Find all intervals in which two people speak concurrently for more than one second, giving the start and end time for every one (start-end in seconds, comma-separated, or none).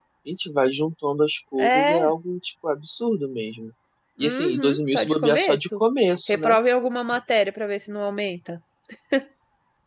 4.2-5.8